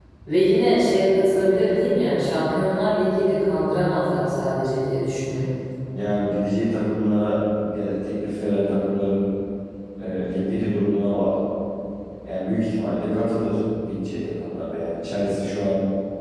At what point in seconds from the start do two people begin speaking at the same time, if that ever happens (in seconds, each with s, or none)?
none